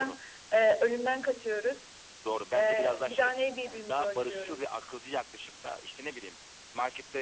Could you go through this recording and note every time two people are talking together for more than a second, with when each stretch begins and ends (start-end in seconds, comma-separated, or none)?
2.5-4.7